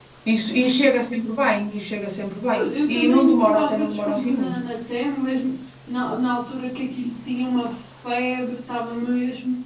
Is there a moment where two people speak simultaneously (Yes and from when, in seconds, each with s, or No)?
Yes, from 2.5 s